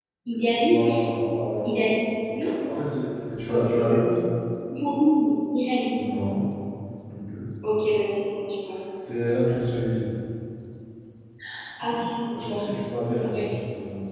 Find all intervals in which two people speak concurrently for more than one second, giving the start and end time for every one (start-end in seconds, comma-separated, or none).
none